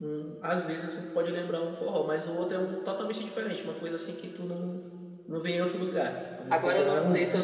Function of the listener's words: taking over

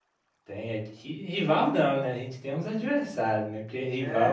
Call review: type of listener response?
taking over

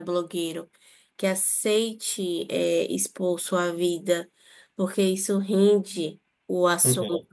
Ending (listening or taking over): listening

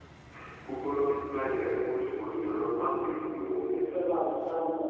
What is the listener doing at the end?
taking over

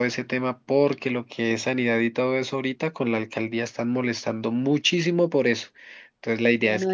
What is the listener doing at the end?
listening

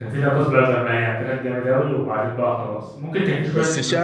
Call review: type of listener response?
taking over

